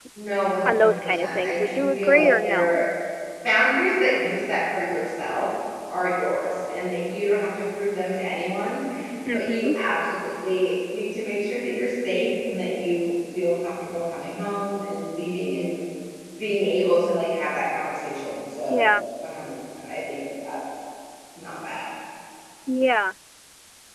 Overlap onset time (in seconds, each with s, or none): 0.6 s